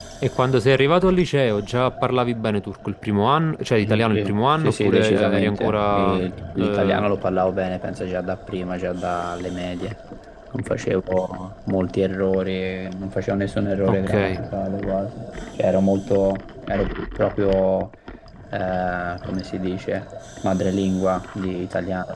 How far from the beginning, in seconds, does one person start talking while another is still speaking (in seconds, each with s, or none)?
3.8 s